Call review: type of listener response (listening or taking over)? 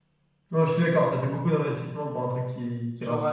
taking over